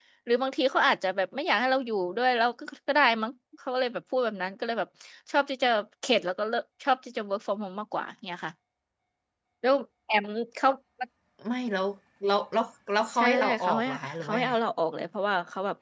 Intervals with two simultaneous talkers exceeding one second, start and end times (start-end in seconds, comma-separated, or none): 13.2-14.5